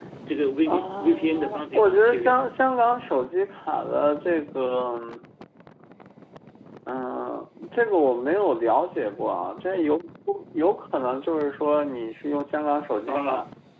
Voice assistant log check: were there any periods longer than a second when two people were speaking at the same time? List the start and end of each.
0.7-2.4

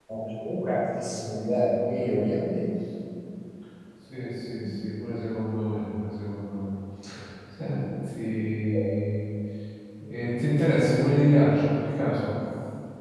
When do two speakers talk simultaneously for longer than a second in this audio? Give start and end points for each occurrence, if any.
none

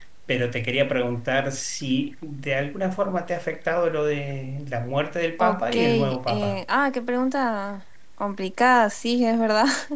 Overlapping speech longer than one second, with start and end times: 5.4-6.6

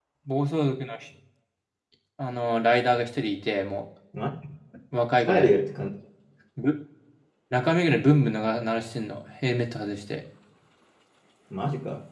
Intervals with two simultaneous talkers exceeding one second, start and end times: none

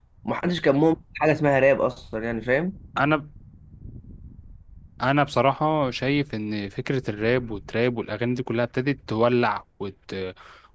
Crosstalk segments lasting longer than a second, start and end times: none

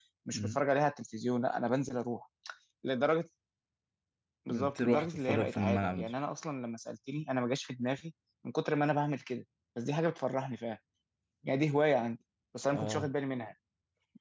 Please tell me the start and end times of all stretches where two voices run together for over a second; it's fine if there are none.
4.5-6.1

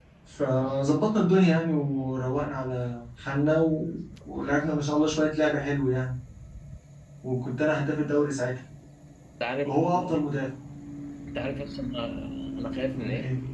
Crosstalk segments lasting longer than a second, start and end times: none

